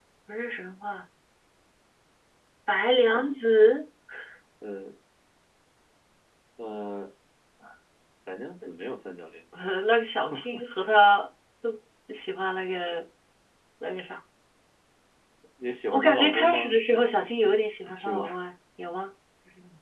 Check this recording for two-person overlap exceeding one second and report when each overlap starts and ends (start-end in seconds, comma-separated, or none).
15.9-17.3